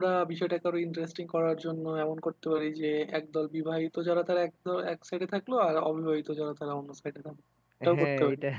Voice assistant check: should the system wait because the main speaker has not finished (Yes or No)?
No